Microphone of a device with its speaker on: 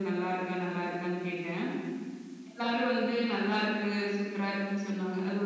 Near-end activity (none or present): none